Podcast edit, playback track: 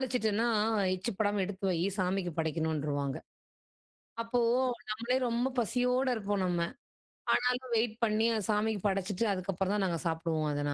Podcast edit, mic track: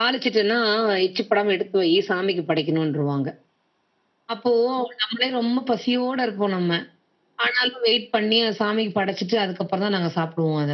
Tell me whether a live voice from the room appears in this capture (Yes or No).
No